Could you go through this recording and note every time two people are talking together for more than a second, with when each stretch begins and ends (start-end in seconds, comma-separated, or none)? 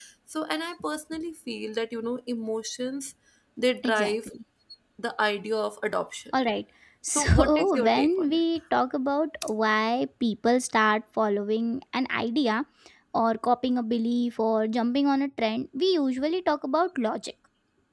7.1-8.4